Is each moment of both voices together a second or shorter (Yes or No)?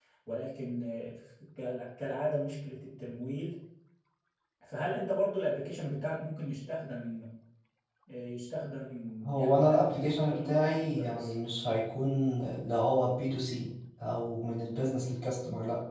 No